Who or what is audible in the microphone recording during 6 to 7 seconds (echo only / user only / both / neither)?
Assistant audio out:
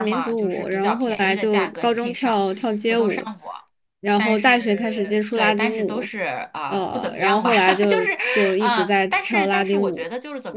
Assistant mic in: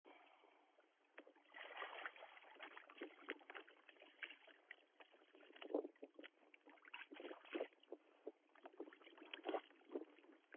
neither